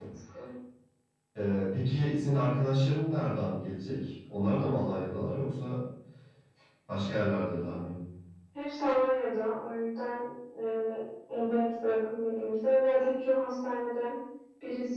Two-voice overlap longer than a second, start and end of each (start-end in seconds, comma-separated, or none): none